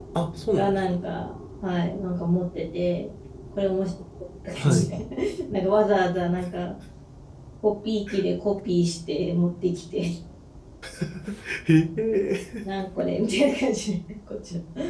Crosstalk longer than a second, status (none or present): none